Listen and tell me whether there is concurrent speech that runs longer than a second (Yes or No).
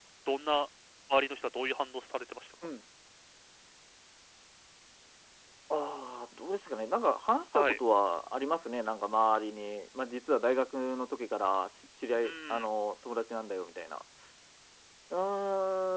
No